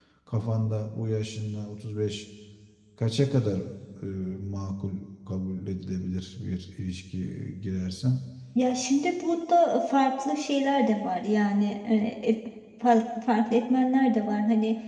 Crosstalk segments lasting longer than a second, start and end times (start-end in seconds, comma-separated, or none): none